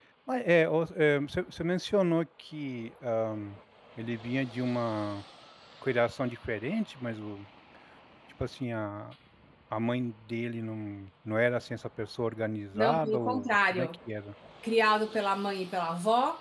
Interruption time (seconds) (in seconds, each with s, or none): 12.7 s